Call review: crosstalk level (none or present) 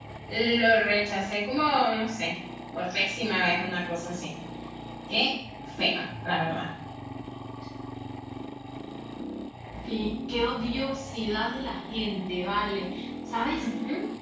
none